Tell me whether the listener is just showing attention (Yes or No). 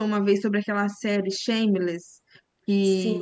Yes